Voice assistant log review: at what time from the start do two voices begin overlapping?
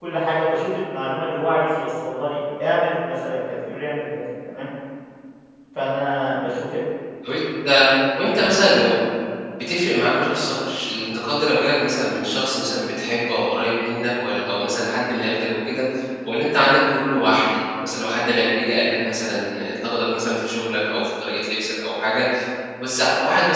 none

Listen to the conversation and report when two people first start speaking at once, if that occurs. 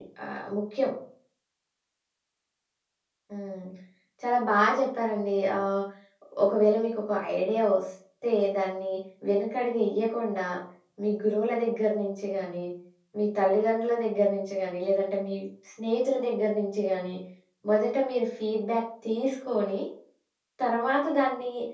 none

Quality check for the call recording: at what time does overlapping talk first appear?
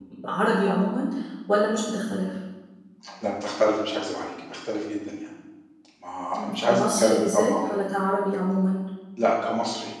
6 s

